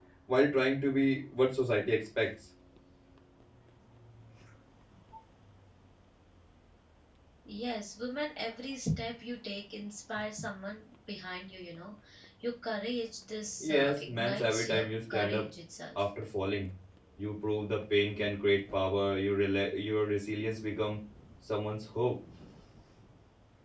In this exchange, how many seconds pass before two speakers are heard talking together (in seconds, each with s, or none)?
13.6 s